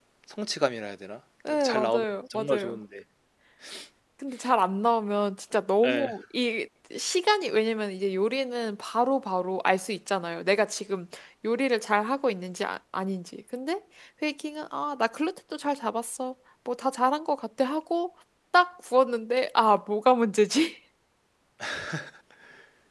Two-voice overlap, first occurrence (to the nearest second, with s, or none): 1 s